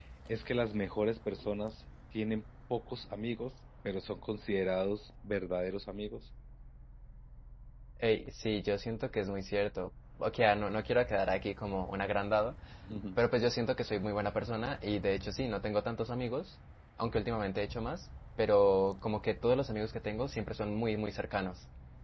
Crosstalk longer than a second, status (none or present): none